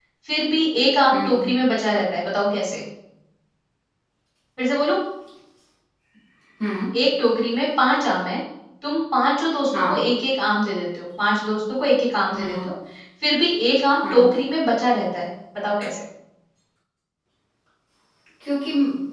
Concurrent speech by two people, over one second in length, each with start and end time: none

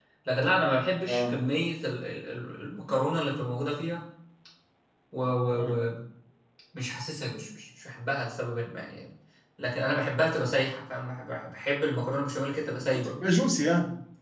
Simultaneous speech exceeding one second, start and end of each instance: none

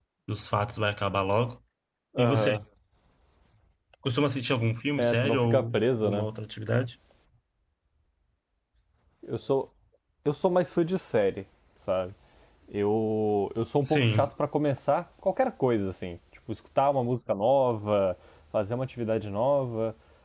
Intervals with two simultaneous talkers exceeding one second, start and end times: 5.0-6.3

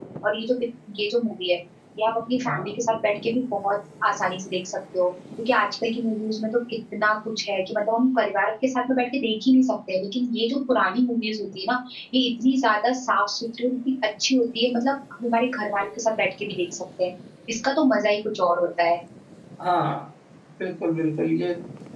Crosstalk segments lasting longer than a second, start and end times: none

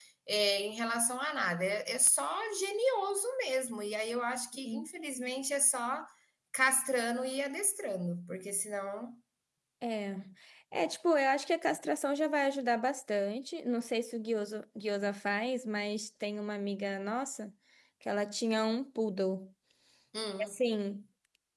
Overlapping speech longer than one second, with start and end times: none

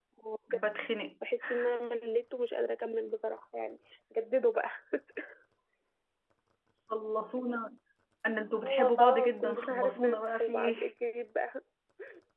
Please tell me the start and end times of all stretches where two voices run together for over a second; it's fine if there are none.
8.6-10.7

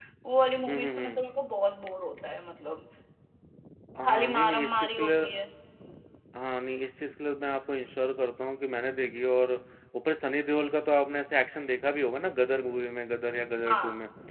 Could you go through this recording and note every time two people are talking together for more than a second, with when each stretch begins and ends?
4.0-5.4

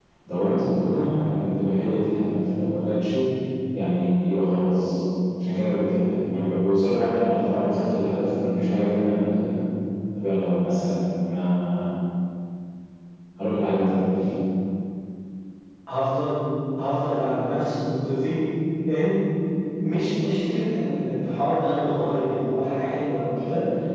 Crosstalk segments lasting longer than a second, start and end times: none

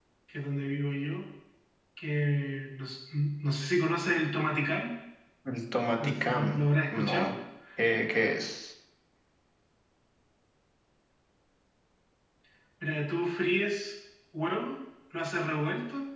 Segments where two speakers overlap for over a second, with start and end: 6.0-7.3

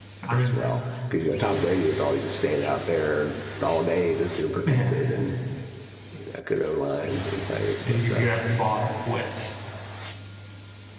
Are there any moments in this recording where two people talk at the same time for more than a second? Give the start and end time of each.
none

